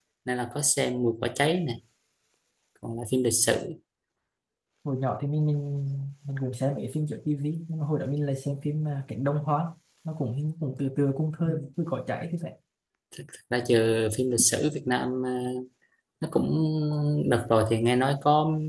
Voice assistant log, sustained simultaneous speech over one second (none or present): none